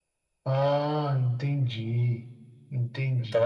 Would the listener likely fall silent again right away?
No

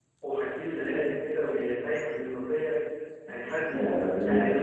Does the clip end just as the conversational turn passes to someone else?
Yes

